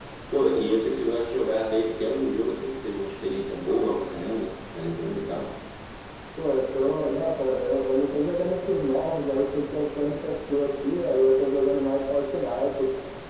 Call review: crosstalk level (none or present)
none